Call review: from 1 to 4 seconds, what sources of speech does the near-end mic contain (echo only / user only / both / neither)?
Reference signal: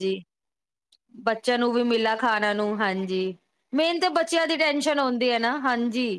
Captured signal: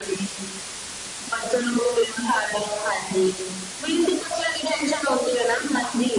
echo only